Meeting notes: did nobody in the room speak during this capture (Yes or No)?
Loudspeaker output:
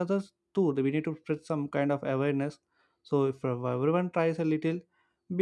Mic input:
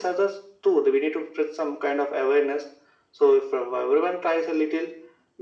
Yes